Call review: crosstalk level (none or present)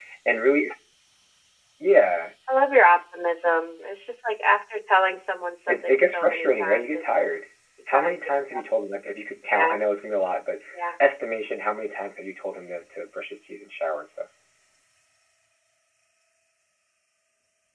present